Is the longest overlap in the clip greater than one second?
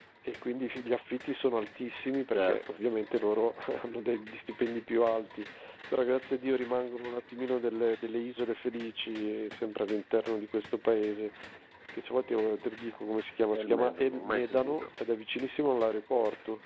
Yes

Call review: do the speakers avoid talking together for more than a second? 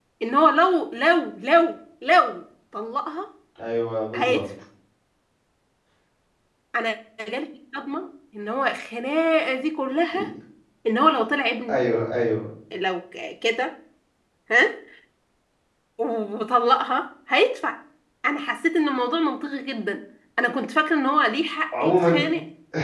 Yes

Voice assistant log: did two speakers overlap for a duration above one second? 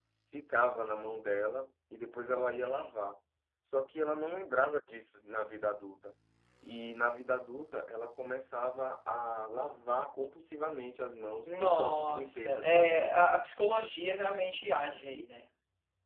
Yes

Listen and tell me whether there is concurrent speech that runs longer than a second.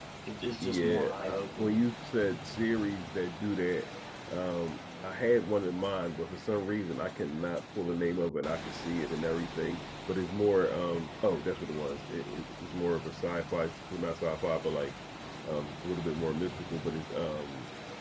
Yes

